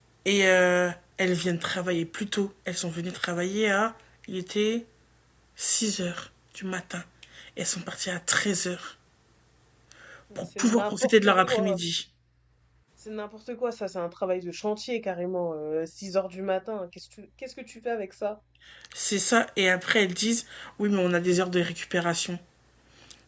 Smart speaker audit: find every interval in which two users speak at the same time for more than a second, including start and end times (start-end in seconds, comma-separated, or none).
10.4-11.8